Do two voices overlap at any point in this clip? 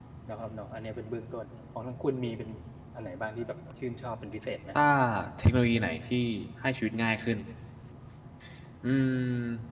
No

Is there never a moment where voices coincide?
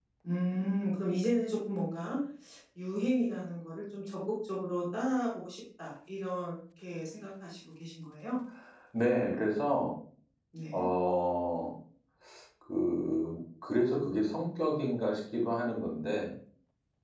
Yes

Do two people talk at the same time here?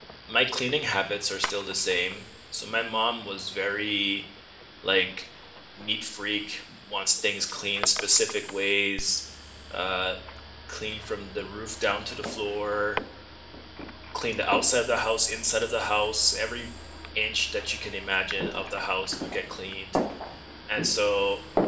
No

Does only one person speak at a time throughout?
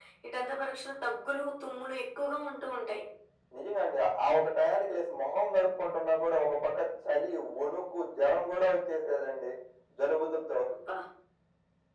Yes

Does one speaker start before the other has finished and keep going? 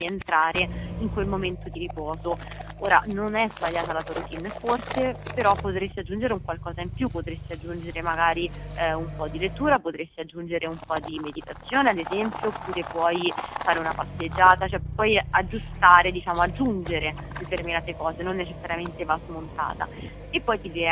No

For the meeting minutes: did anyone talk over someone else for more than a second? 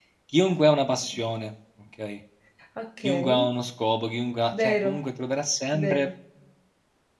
No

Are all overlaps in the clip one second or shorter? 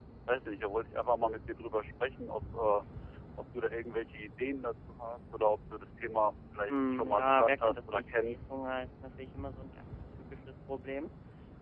No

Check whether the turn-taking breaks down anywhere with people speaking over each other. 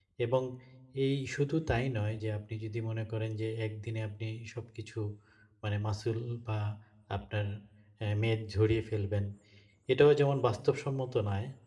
No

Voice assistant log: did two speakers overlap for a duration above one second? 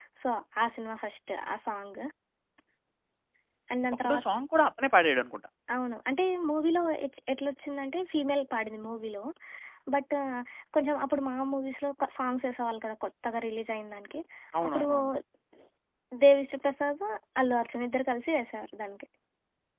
No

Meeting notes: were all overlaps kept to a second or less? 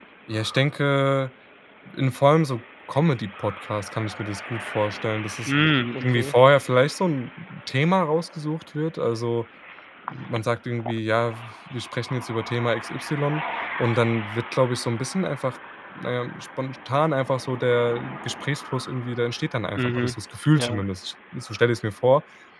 Yes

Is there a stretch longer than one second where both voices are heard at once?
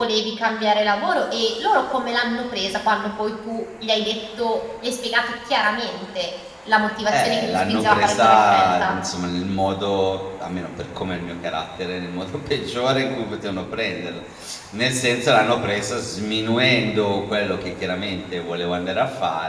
Yes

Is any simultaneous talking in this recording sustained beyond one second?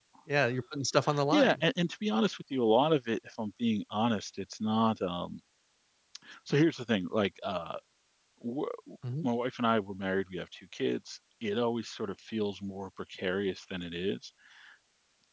No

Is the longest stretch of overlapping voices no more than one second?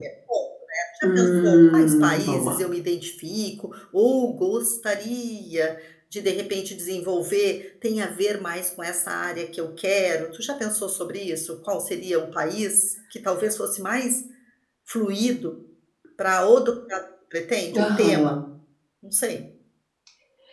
No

